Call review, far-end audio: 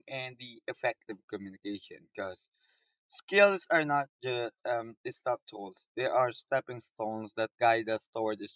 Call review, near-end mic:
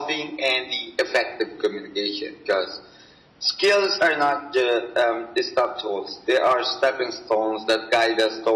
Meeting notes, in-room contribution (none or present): none